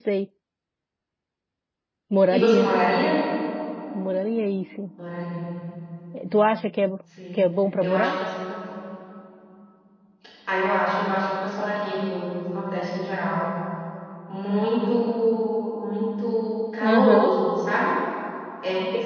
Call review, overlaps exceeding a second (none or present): none